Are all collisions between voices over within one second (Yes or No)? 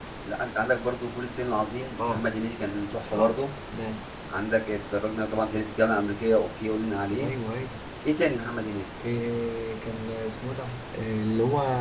Yes